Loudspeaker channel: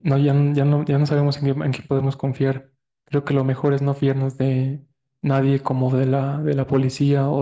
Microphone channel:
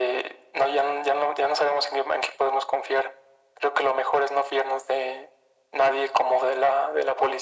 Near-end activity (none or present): none